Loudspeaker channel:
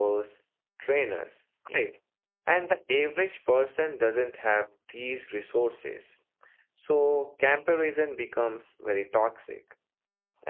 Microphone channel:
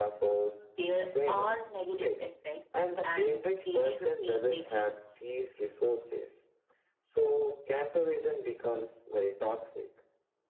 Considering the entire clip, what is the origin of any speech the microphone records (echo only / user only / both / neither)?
both